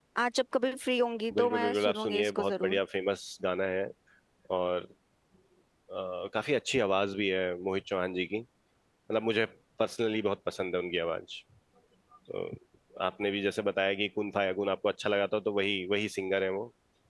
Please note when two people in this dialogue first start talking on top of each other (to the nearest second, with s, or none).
1 s